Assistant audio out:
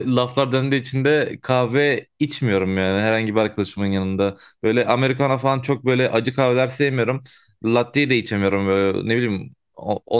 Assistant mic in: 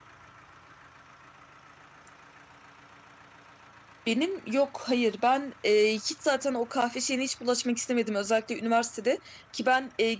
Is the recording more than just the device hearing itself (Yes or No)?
Yes